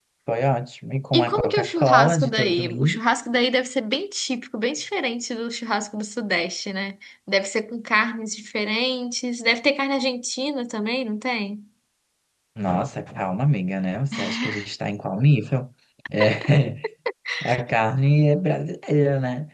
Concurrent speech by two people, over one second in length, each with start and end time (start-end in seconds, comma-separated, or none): 1.1-3.0